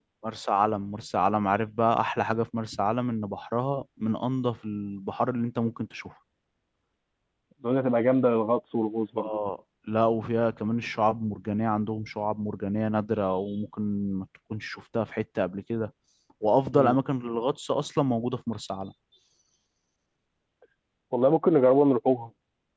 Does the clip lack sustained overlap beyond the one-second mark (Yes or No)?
Yes